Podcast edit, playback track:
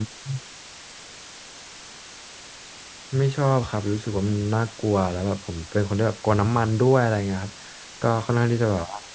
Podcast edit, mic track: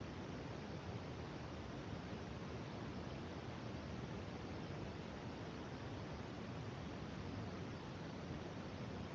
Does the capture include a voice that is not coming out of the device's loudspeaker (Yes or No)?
No